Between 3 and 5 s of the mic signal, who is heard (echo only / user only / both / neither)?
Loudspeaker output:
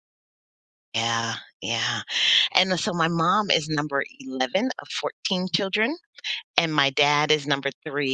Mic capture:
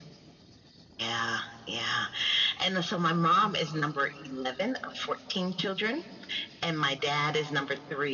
echo only